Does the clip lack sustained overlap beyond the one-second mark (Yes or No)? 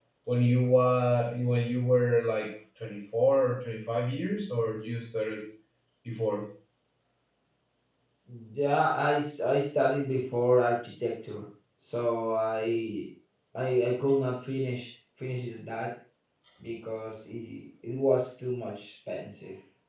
Yes